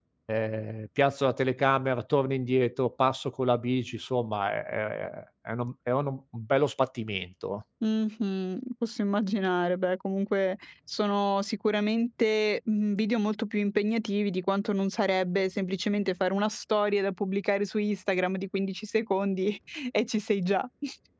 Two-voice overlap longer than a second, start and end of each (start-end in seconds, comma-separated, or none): none